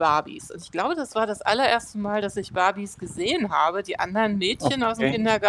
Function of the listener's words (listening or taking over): listening